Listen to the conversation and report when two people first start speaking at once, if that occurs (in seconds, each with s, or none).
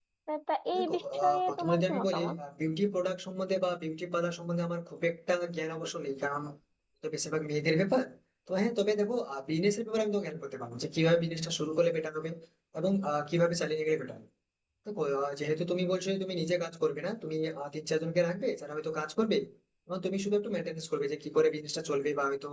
0.8 s